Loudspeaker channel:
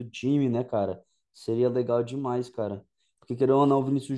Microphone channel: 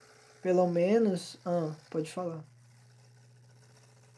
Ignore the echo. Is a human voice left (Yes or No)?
Yes